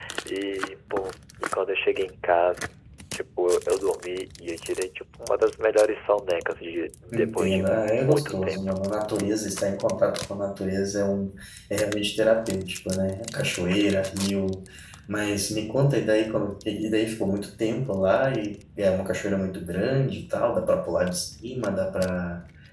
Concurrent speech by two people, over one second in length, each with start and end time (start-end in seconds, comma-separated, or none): 7.1-8.6